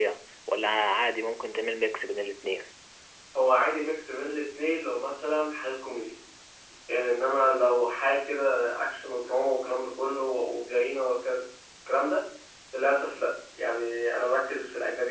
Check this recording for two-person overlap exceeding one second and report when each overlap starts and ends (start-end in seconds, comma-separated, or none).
none